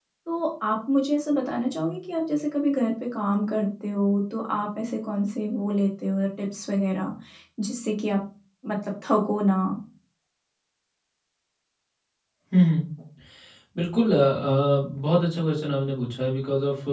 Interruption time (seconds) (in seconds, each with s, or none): none